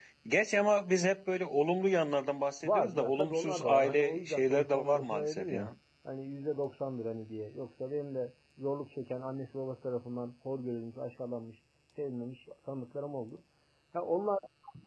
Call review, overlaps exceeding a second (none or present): present